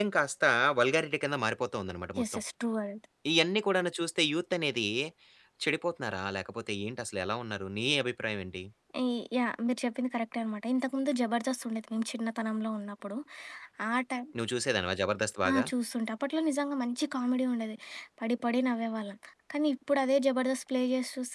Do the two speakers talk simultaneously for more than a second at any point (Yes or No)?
No